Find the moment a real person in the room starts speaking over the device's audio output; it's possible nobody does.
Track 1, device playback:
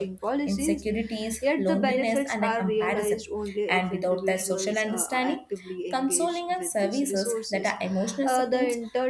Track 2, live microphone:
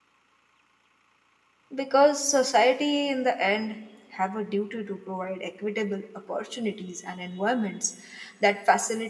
1.7 s

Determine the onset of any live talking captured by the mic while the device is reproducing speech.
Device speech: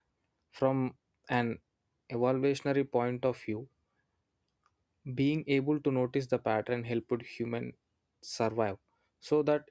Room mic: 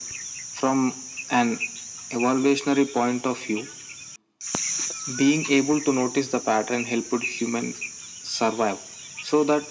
none

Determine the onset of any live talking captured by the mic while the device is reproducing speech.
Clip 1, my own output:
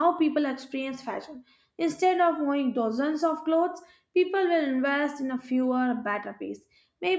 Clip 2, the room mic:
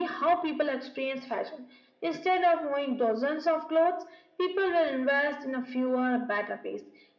none

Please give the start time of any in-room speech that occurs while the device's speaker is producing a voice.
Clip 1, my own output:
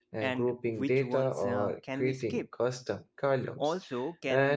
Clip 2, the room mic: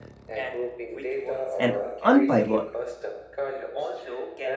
1.6 s

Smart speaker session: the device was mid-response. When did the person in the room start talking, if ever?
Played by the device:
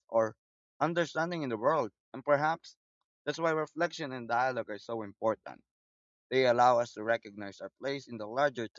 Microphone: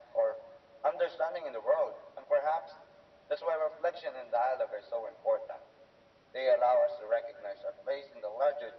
none

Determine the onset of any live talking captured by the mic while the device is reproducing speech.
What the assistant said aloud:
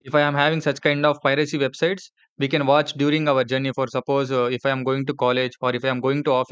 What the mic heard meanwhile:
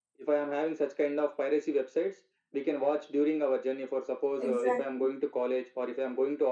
4.4 s

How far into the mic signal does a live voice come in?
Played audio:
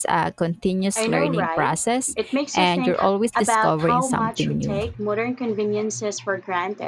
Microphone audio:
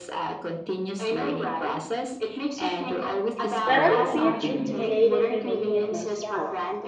3.6 s

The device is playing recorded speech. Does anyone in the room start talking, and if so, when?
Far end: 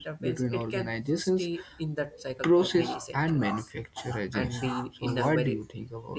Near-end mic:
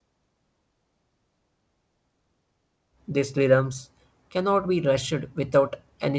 3.1 s

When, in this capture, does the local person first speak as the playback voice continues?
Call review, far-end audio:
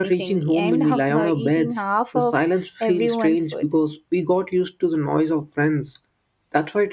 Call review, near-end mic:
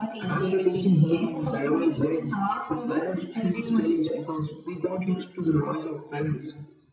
none

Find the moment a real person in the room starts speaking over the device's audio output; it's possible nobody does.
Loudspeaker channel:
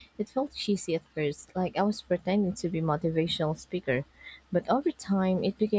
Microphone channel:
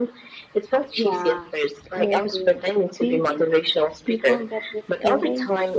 1.0 s

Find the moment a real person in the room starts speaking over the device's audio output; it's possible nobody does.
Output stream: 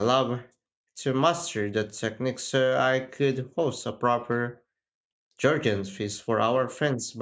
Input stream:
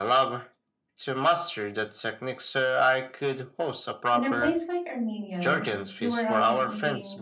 4.1 s

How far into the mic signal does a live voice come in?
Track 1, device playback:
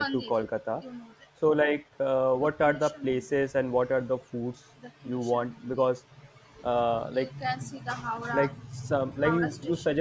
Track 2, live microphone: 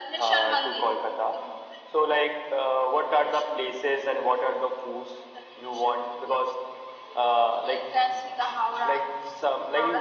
none

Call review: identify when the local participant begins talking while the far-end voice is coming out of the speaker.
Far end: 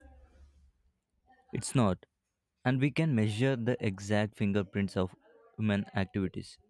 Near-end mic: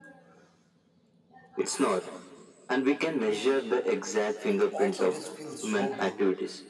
4.5 s

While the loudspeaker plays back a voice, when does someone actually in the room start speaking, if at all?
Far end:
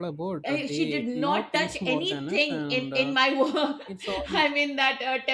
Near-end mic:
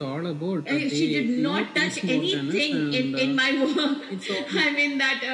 none

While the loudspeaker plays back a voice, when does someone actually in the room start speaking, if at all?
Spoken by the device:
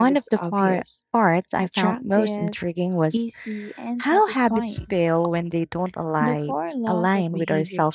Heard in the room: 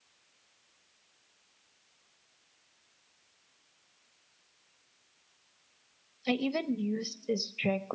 6.2 s

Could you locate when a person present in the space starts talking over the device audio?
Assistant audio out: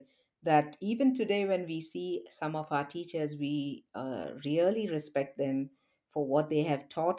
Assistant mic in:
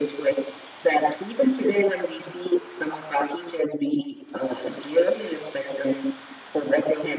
none

